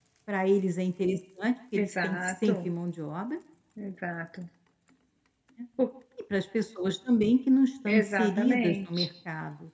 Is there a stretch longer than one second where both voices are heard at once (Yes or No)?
Yes